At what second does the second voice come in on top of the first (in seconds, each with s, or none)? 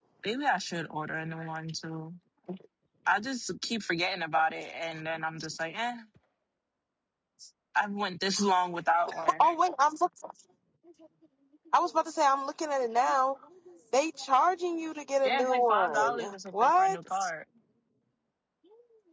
15.2 s